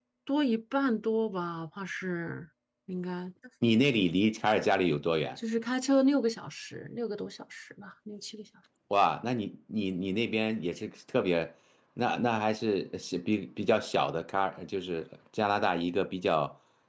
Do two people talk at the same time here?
No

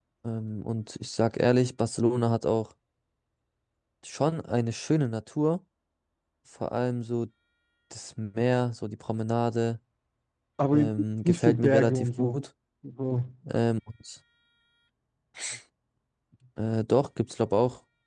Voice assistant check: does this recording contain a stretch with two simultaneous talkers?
Yes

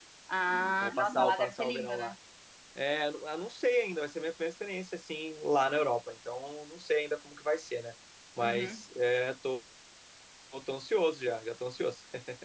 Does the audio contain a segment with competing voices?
Yes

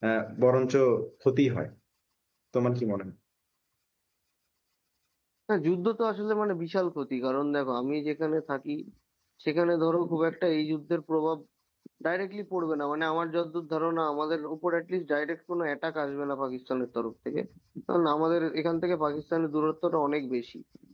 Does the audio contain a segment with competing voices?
No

